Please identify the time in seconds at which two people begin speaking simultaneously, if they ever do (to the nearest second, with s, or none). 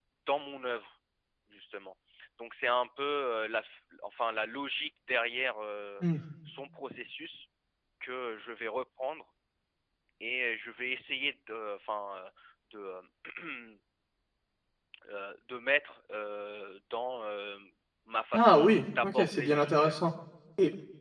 18 s